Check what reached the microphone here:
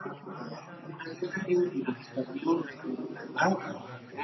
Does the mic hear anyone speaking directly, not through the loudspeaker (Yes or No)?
Yes